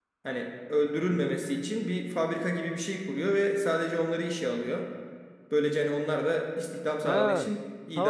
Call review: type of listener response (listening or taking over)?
taking over